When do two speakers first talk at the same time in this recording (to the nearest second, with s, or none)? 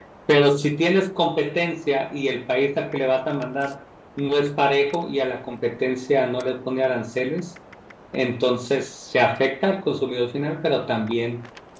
none